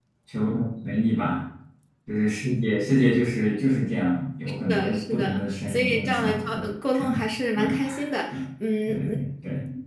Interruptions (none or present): present